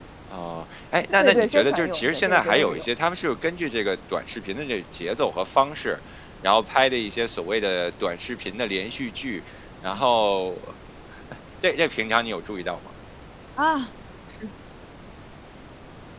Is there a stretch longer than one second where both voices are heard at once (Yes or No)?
Yes